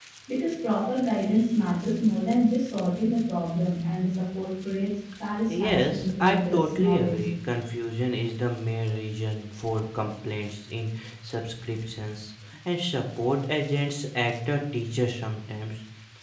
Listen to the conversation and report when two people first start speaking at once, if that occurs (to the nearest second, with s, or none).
5 s